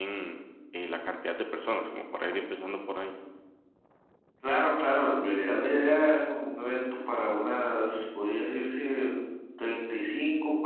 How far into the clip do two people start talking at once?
none

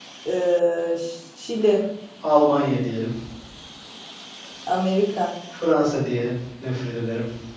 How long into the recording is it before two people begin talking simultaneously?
none

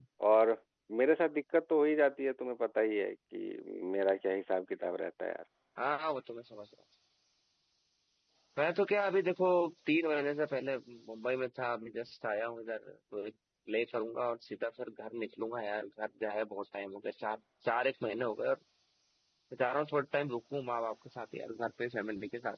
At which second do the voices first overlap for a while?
none

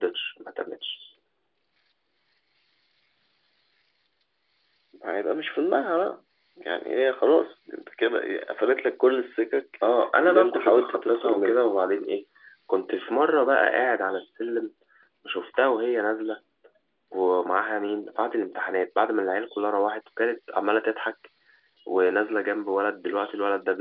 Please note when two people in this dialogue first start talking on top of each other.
10.2 s

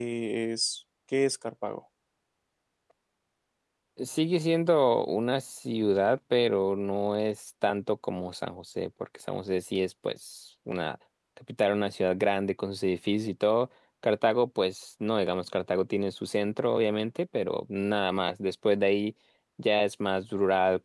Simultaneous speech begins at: none

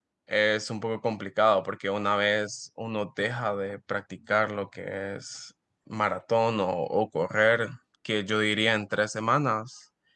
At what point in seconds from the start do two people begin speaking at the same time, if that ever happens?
none

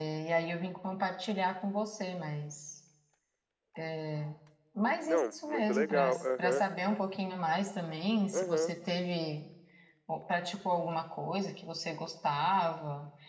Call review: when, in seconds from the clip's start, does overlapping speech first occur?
5.0 s

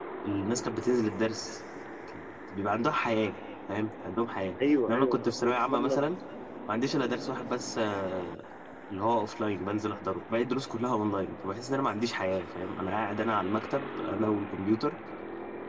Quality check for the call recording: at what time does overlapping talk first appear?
4.9 s

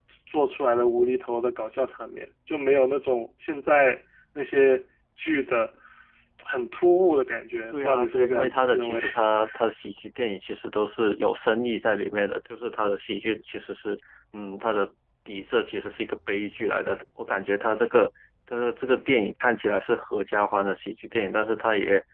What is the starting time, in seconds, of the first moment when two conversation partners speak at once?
7.7 s

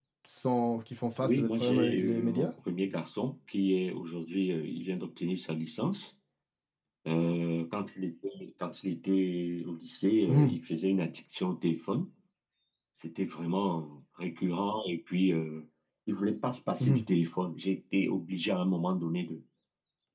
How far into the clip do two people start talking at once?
1.2 s

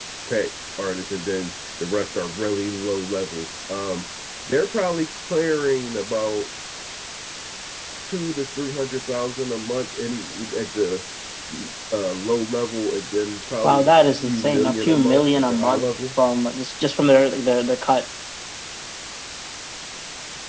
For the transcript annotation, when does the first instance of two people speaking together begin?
13.6 s

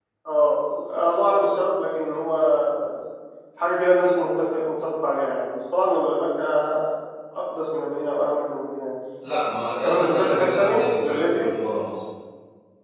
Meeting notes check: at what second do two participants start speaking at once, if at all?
9.8 s

